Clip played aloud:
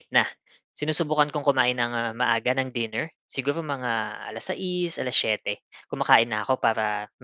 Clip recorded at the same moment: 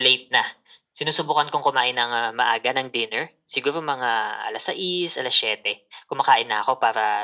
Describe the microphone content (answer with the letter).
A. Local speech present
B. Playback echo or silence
B